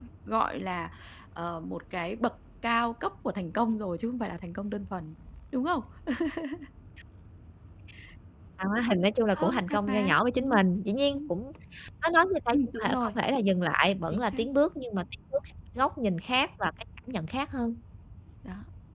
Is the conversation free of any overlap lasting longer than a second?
No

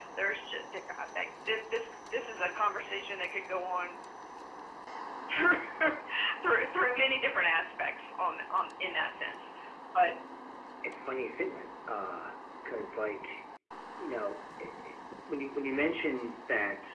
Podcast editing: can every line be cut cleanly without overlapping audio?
Yes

